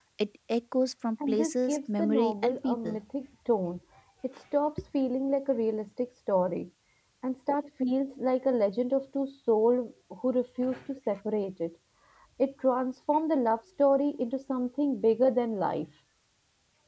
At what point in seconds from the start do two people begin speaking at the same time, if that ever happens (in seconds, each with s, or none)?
1.3 s